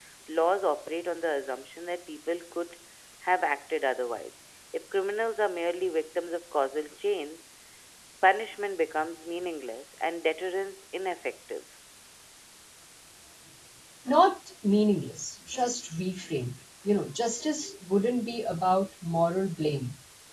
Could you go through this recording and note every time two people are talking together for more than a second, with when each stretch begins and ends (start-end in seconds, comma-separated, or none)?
none